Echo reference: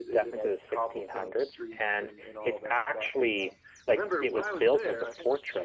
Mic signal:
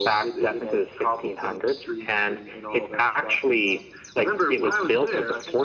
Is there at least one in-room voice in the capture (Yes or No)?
No